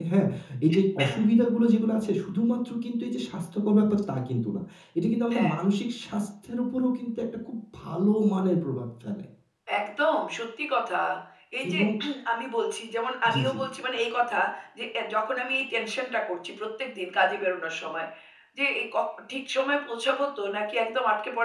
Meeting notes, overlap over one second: none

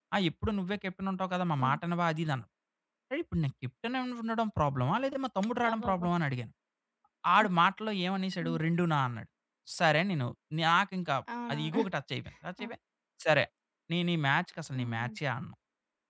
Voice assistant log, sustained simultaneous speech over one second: none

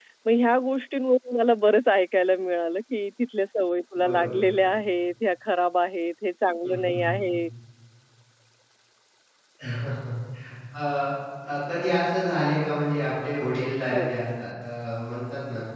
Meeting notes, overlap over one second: none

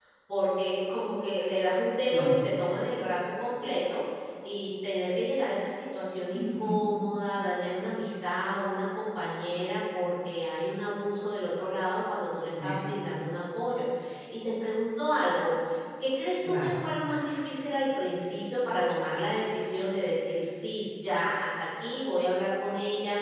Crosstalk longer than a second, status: none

